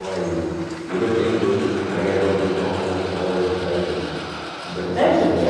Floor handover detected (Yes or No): Yes